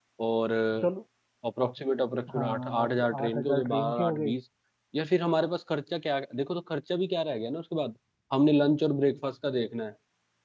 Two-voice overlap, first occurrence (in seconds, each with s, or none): 2.3 s